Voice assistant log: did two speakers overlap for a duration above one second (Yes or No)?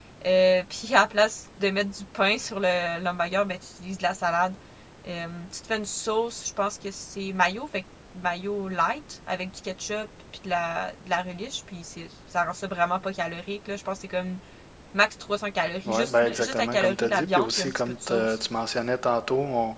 Yes